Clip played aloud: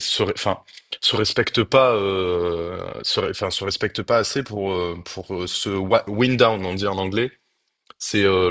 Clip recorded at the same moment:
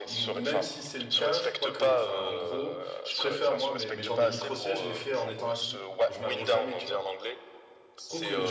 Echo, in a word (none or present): present